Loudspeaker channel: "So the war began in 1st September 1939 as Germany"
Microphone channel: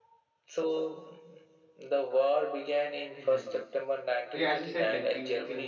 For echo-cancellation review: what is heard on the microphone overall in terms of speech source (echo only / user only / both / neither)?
both